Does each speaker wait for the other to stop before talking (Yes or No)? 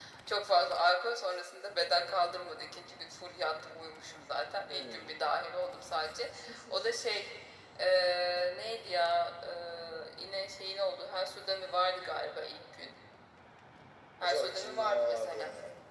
No